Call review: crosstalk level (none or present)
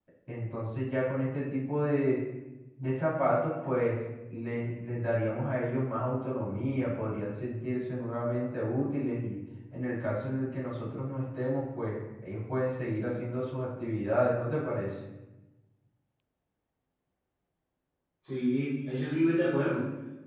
none